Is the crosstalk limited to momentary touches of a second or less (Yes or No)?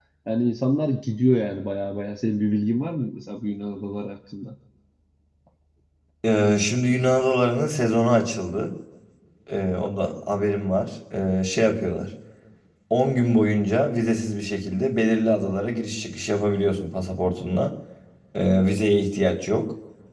Yes